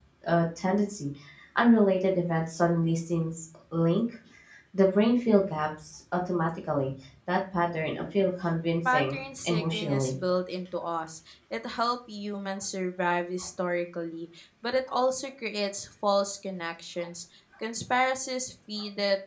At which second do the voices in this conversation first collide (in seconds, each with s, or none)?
8.8 s